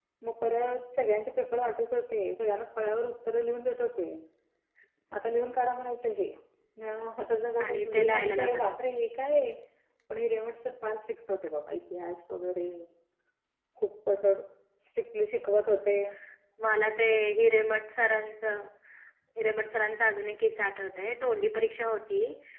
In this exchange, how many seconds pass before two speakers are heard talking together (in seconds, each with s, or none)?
7.7 s